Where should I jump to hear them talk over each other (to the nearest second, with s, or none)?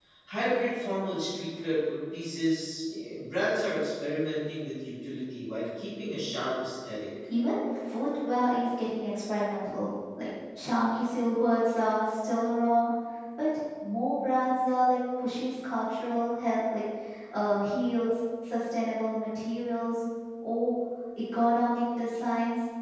none